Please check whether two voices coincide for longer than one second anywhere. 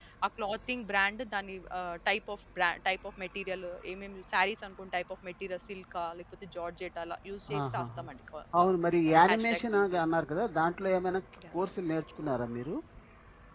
Yes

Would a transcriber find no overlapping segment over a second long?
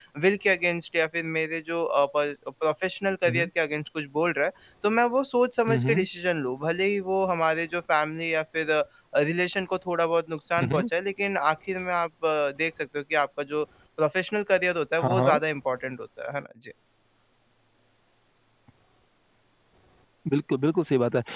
Yes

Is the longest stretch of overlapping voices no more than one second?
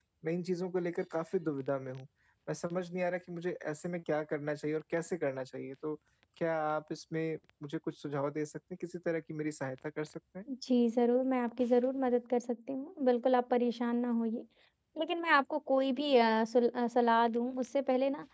Yes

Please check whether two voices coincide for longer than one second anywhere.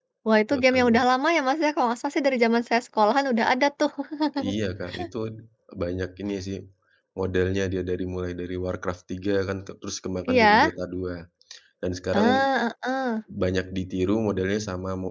No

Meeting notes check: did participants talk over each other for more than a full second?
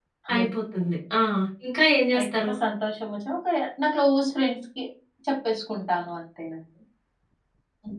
No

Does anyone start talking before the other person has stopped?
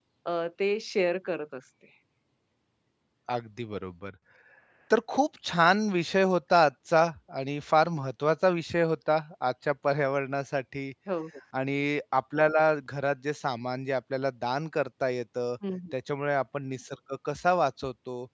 No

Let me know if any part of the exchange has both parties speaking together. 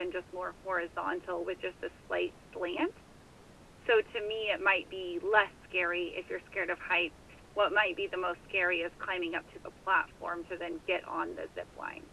No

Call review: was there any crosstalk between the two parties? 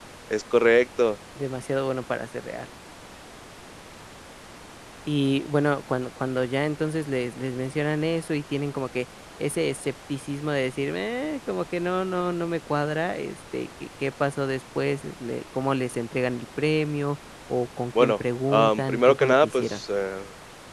Yes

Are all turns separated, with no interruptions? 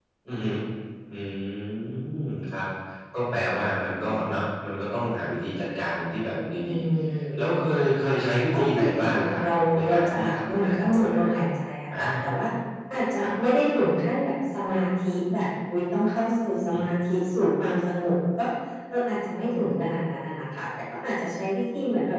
No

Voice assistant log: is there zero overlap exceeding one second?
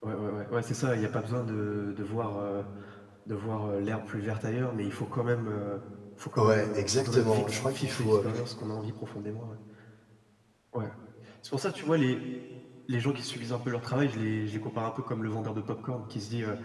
No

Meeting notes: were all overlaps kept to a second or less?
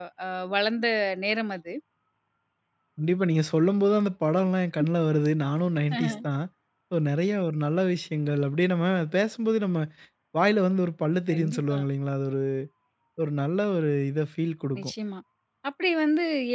Yes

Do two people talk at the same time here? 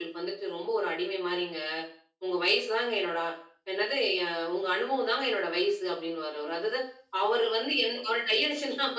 No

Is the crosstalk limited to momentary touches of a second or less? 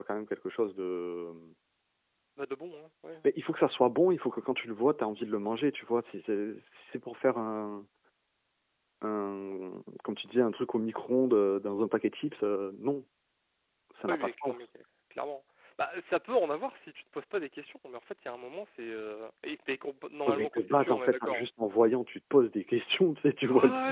No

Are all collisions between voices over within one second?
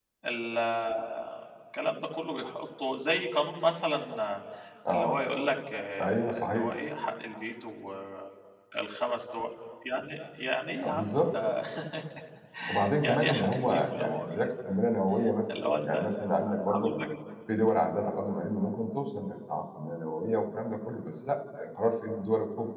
No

